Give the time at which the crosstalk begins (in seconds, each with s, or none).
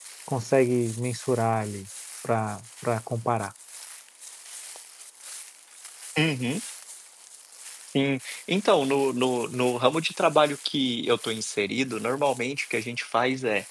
none